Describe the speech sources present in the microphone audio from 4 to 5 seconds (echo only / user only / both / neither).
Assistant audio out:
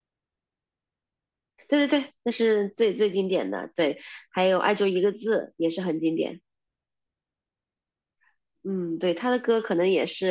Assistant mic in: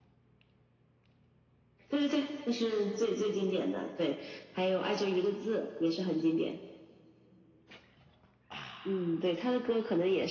echo only